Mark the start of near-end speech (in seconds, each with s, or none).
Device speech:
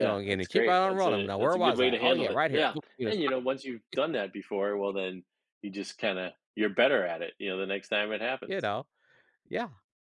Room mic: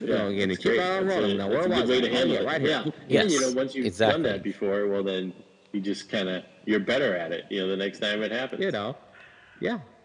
3.1 s